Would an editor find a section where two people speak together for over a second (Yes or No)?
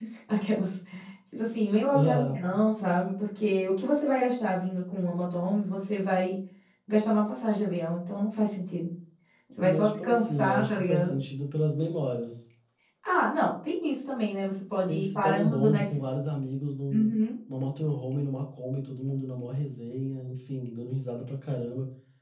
Yes